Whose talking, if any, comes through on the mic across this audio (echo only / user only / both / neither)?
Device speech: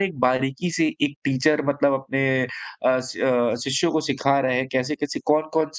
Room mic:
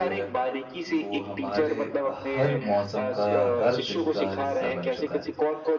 both